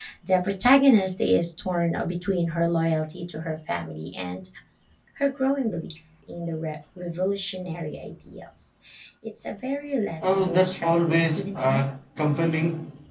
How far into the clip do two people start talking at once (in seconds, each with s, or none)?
10.2 s